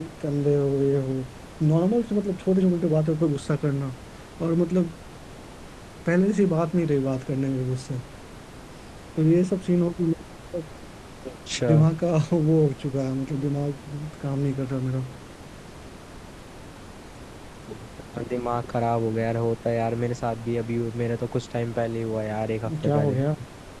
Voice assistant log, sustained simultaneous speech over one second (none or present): none